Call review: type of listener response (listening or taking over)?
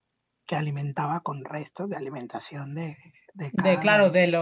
taking over